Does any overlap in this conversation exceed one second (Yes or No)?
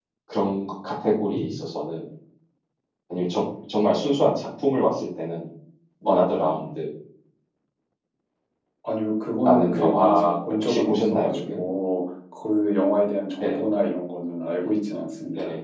Yes